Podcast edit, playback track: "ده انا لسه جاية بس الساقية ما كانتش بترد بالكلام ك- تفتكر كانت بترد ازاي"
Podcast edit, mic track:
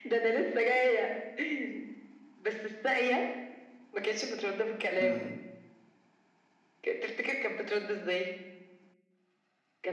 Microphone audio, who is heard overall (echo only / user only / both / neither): both